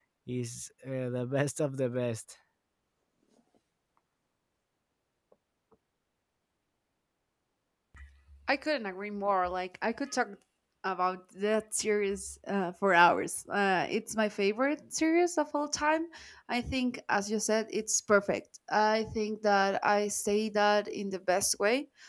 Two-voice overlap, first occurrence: none

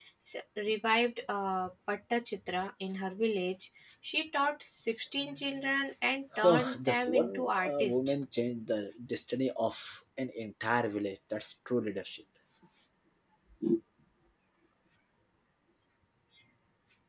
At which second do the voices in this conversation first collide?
6.3 s

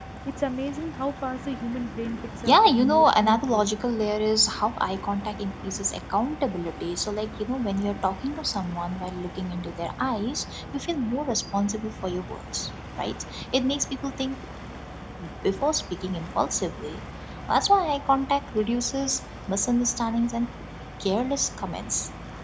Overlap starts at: 2.5 s

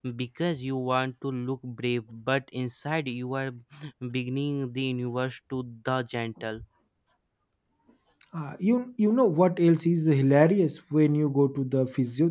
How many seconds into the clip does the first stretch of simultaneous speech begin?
none

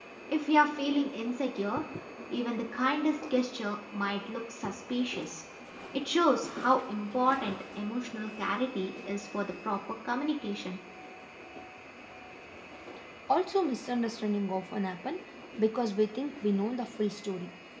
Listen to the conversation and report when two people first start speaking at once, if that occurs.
none

